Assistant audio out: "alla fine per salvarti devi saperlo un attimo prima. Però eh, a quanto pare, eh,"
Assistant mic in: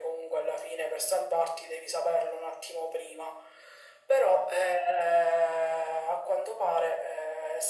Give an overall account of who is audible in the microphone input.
echo only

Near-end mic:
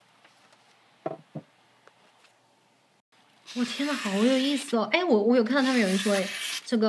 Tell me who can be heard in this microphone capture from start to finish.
user only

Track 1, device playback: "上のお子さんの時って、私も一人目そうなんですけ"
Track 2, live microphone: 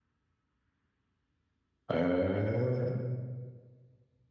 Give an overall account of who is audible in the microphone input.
user only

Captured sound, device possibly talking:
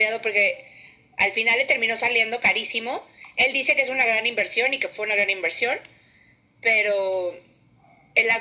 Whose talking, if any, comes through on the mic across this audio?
echo only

